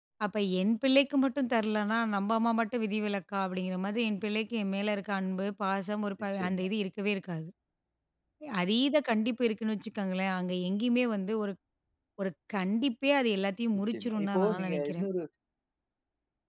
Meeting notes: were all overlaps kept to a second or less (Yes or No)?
No